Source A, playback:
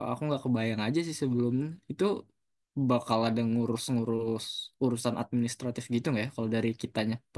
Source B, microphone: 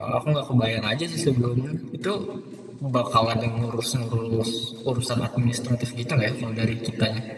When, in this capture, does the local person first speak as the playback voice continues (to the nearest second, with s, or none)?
none